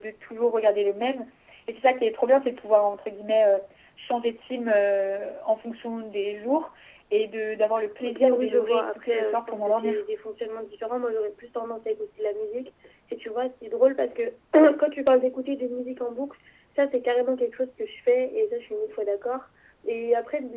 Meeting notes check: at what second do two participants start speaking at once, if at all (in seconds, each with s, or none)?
8.0 s